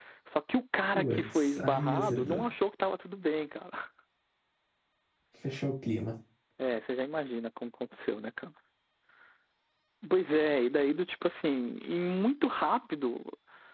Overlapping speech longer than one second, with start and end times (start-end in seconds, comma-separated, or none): 0.9-2.4